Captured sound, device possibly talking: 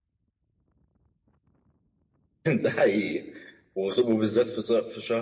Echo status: none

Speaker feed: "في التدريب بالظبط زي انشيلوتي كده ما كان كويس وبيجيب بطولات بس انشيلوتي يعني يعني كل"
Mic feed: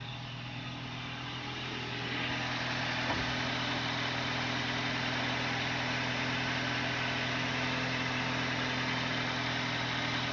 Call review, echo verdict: none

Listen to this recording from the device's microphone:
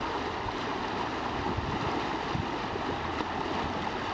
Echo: none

